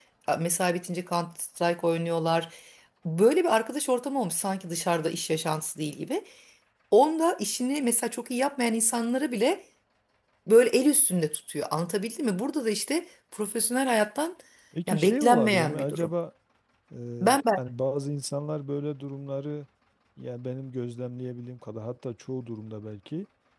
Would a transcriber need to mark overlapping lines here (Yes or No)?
Yes